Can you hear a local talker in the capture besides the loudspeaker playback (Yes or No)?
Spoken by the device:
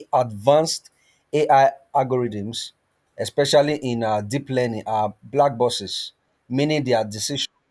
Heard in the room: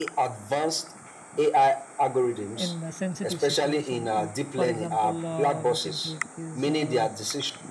Yes